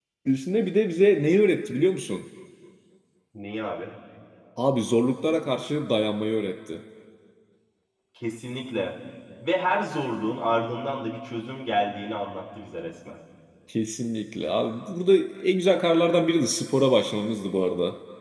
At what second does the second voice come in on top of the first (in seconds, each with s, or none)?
none